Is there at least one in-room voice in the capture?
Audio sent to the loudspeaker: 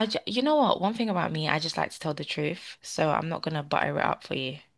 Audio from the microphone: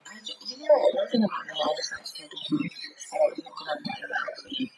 No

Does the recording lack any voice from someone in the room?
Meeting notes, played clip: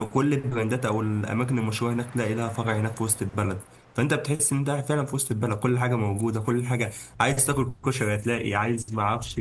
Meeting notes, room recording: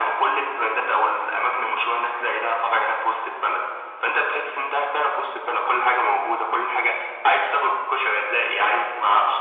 Yes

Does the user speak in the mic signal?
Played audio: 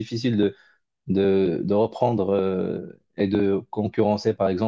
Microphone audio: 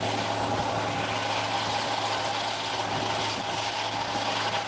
No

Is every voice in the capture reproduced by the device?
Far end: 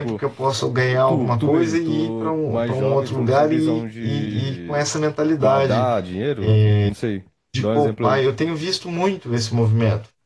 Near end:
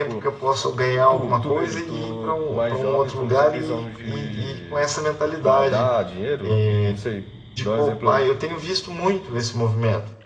Yes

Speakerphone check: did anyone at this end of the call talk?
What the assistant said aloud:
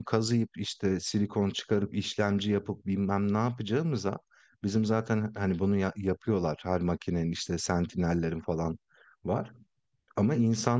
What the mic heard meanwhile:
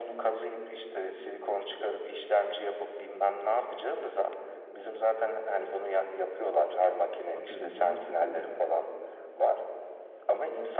Yes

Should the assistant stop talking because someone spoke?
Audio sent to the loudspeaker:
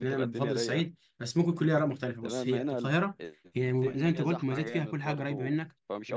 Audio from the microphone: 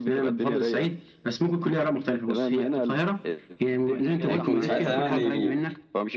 Yes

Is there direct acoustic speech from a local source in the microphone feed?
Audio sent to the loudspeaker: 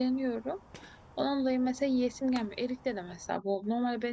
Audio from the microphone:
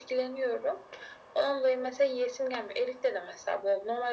No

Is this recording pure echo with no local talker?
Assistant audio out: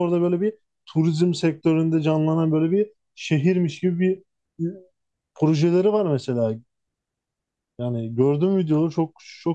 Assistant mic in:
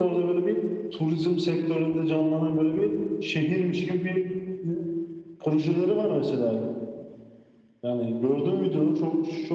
Yes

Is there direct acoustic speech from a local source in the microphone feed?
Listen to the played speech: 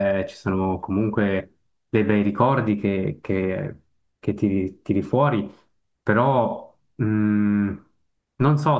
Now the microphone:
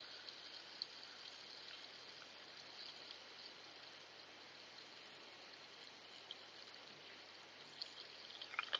No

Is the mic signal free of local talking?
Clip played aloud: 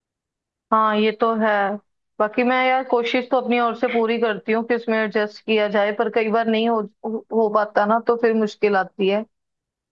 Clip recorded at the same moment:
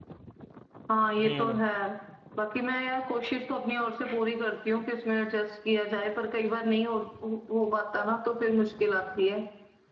No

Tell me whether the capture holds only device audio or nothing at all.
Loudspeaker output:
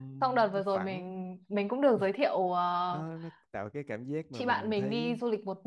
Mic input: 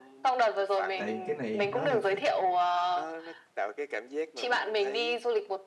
No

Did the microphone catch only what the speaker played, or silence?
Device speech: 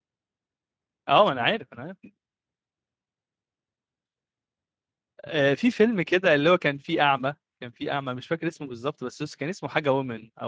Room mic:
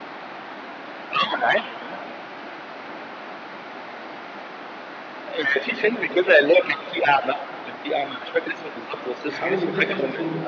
No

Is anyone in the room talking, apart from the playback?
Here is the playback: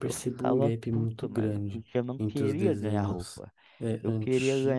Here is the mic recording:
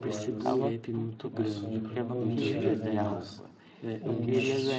Yes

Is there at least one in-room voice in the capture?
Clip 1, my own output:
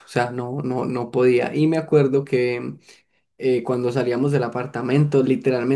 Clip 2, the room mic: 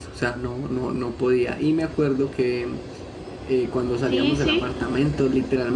Yes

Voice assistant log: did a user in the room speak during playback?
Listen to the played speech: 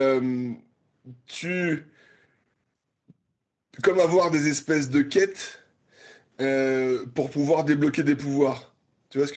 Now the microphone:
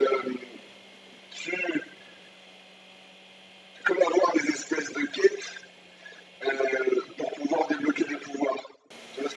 No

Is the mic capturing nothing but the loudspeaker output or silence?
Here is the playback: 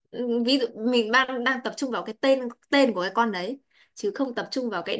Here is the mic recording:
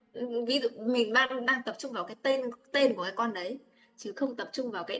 Yes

